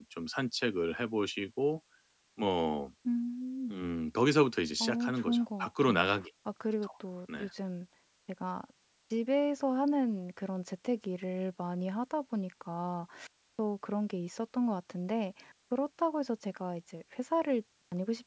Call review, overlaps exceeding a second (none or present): present